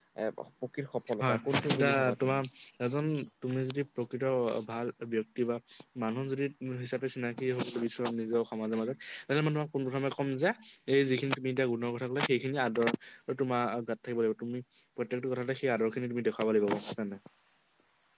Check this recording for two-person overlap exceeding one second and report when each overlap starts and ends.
1.2-2.4

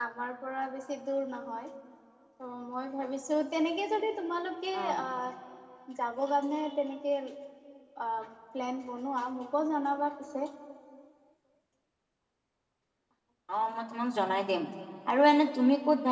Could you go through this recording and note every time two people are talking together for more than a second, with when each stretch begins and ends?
none

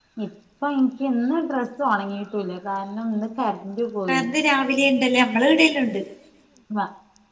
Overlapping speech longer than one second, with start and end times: none

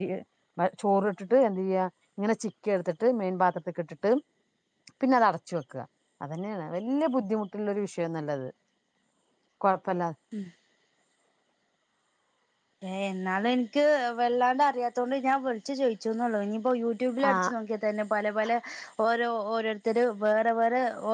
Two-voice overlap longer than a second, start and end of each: none

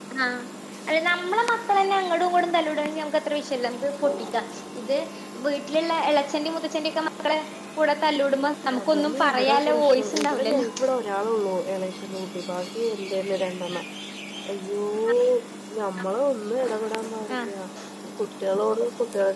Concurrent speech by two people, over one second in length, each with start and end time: 8.8-10.6

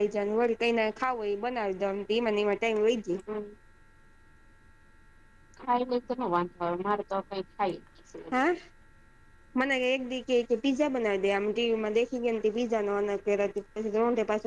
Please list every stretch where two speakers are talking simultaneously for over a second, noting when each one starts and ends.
none

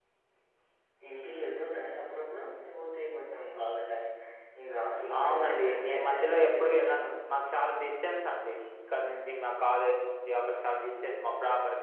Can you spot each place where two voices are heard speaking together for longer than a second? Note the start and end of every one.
5.2-6.6

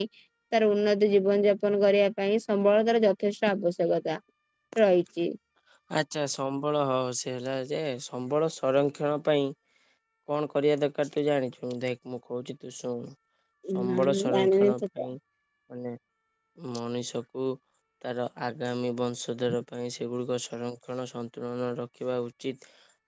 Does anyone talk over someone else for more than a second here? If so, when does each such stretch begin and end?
13.8-15.1

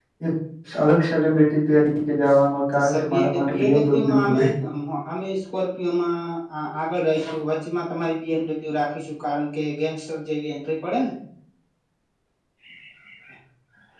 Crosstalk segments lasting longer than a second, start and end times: 2.7-4.4

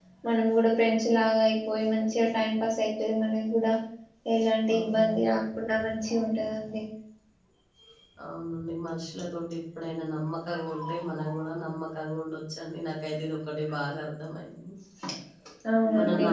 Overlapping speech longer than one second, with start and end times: none

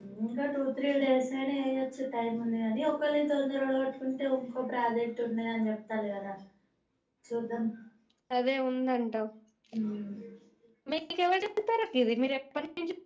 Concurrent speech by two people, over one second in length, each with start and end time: none

